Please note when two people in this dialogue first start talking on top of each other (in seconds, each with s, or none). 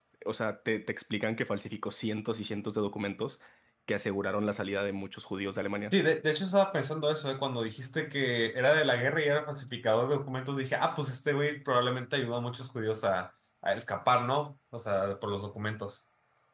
none